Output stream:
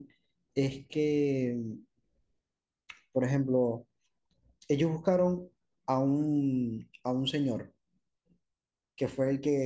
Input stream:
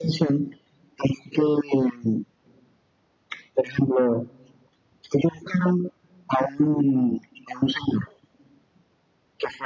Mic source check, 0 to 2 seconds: echo only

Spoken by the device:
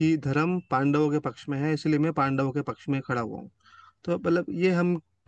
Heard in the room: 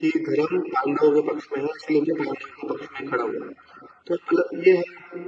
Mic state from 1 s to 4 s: echo only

